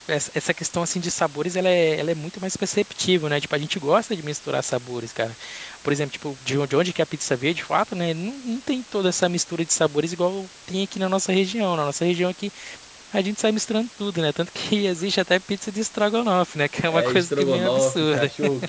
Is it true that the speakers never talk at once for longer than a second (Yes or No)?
No